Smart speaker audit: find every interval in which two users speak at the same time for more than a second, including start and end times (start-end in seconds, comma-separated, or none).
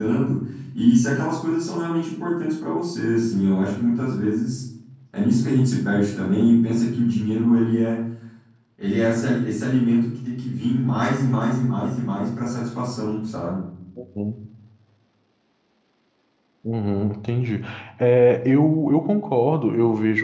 none